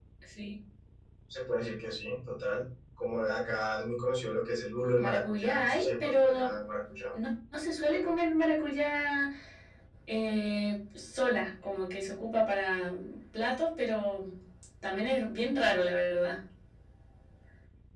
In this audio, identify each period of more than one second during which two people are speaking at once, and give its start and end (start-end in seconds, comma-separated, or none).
5.0-6.5